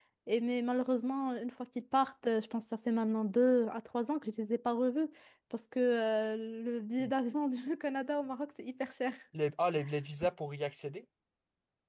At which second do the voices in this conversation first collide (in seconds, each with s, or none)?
none